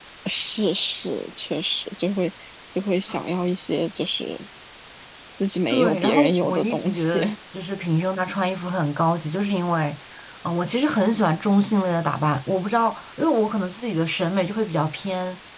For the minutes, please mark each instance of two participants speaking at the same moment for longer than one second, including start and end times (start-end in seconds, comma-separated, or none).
5.7-7.2